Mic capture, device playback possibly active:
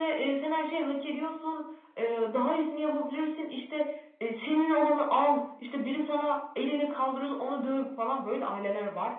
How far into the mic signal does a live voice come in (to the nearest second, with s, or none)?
none